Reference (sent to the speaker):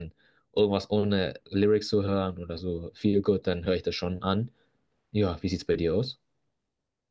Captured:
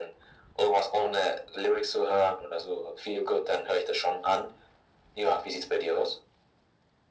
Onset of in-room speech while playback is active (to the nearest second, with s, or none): none